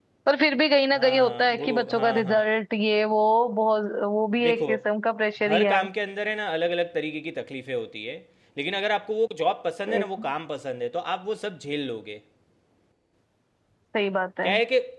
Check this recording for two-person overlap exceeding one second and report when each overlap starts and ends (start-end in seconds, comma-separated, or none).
0.9-2.4